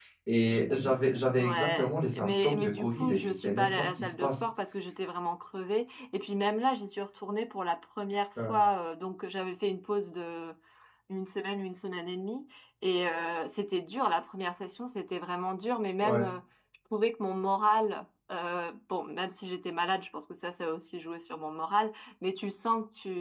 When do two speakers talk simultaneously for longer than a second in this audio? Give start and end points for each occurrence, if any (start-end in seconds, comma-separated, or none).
1.4-4.4